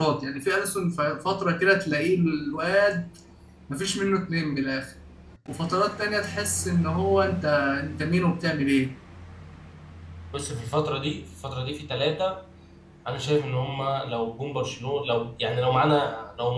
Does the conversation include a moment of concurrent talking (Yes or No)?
No